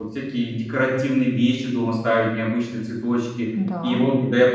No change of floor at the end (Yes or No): Yes